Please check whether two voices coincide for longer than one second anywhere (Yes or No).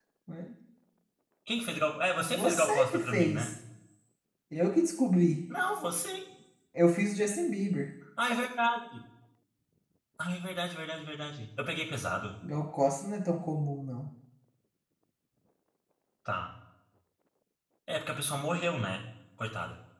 Yes